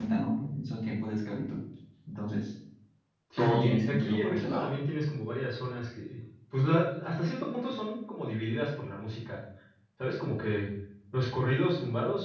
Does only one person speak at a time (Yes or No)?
No